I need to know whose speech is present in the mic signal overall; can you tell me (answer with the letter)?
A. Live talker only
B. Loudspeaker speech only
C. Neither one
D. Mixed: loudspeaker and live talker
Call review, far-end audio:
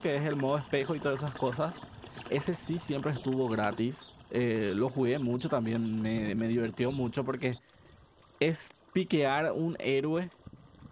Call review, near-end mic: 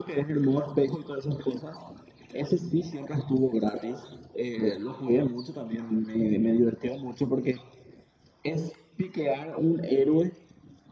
B